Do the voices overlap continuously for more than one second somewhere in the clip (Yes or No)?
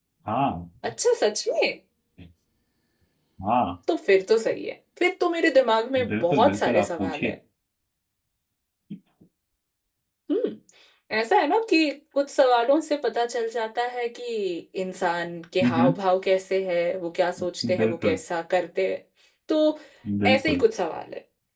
Yes